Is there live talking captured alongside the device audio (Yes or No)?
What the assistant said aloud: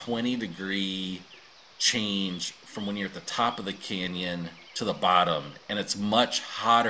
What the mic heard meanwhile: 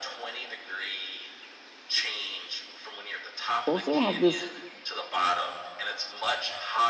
Yes